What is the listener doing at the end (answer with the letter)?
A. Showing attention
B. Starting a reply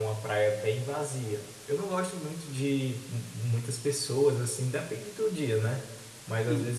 A